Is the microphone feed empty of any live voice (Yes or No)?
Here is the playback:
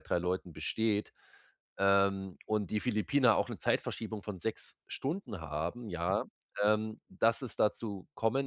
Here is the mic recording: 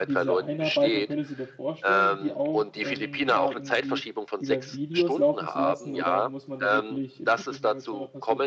No